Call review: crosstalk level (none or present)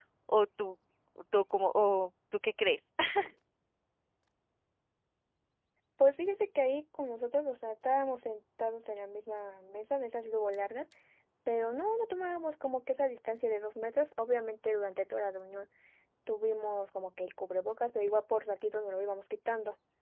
none